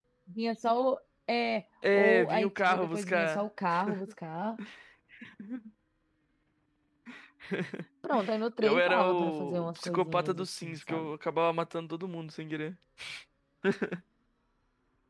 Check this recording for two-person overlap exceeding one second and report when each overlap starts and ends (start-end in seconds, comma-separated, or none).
1.9-3.4, 8.6-11.1